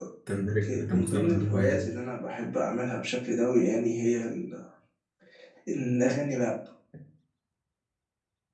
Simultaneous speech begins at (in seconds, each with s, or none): 0.6 s